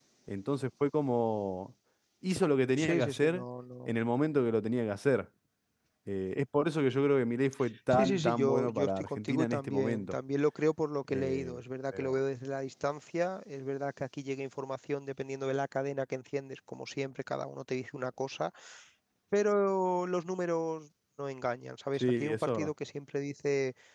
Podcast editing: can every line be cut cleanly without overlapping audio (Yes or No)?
No